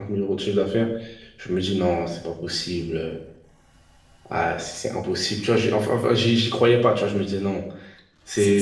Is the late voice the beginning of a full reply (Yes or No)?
Yes